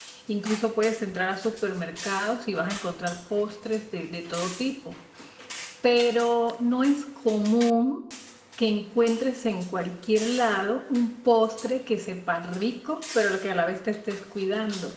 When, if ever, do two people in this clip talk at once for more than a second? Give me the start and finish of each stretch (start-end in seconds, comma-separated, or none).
none